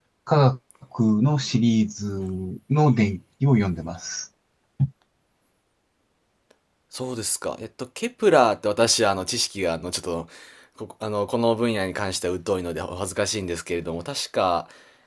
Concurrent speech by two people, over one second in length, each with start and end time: none

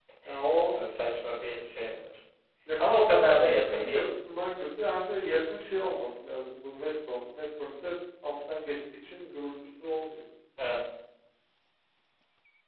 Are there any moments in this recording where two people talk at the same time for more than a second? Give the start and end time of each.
2.8-4.0

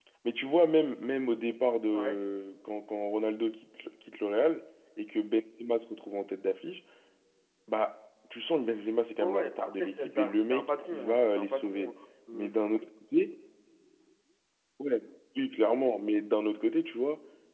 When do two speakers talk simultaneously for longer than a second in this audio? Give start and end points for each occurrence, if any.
9.2-11.9

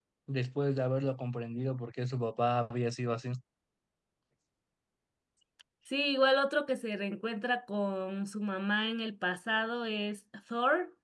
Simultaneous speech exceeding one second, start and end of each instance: none

